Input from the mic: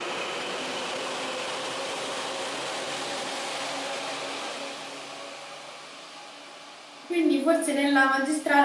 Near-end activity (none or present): present